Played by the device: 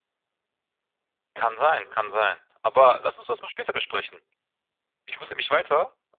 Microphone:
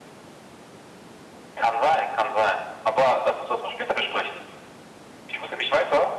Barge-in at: none

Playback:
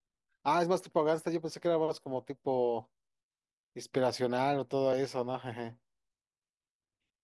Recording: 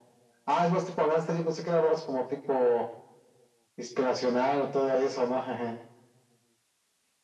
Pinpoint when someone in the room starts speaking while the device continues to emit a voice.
none

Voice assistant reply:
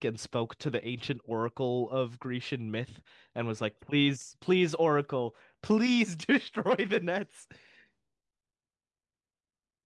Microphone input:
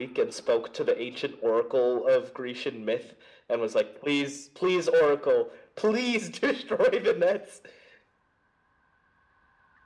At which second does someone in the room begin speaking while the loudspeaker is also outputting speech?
none

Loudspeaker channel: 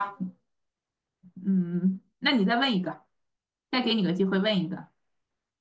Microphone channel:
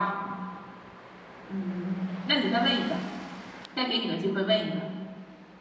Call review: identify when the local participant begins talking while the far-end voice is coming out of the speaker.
none

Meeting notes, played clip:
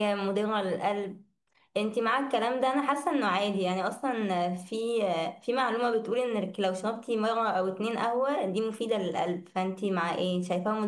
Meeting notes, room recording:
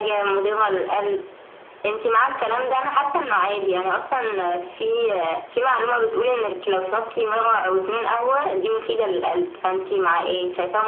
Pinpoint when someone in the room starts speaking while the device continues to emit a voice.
none

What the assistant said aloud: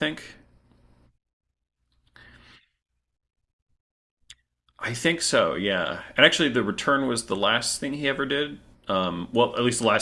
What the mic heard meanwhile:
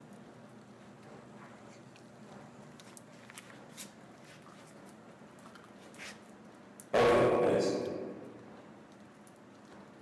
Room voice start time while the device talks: 6.9 s

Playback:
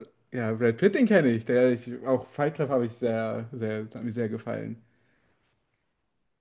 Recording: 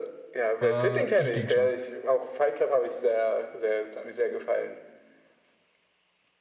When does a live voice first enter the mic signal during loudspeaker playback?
0.6 s

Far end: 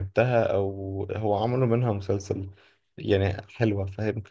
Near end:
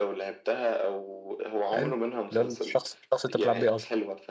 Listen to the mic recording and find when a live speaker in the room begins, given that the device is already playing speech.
1.7 s

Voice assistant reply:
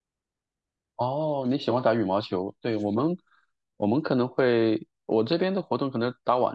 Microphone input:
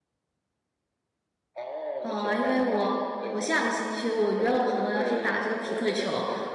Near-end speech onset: 2.0 s

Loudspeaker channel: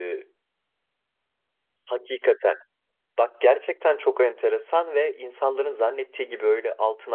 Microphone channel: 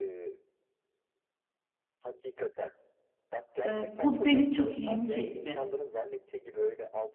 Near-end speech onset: 3.7 s

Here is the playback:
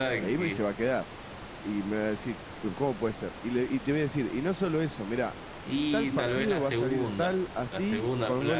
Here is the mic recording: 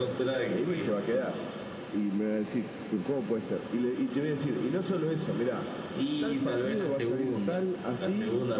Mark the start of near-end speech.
none

